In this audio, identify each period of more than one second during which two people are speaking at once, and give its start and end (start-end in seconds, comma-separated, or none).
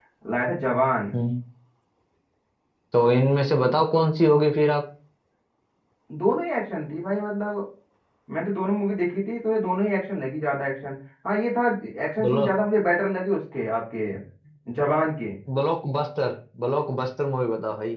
none